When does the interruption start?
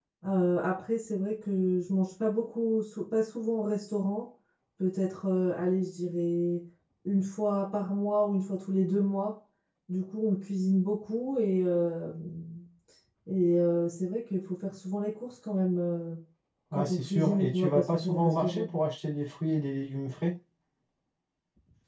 17 s

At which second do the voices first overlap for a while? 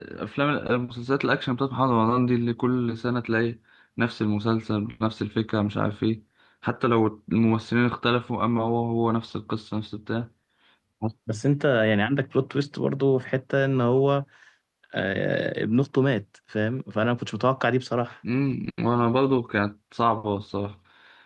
none

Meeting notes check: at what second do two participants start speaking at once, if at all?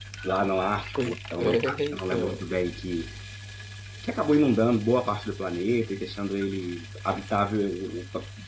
1 s

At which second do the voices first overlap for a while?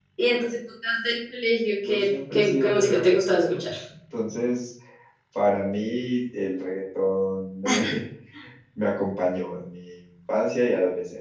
2 s

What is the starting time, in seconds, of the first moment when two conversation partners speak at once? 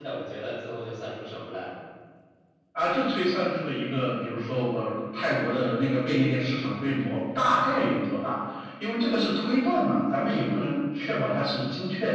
none

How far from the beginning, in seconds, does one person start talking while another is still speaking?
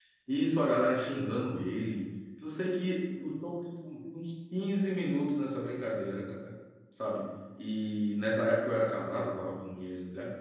none

